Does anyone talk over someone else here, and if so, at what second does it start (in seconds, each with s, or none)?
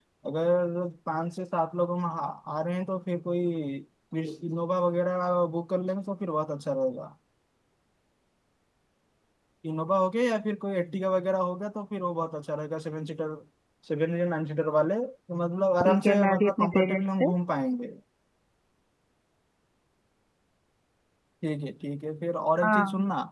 15.8 s